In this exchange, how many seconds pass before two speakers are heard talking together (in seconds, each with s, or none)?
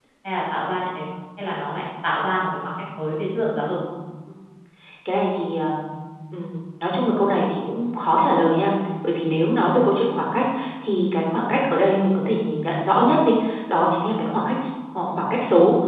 none